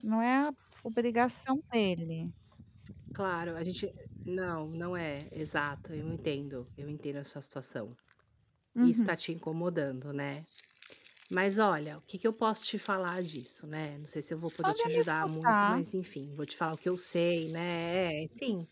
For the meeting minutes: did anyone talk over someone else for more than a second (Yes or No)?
Yes